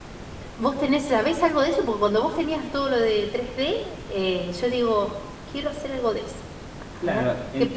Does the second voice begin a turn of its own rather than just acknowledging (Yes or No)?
Yes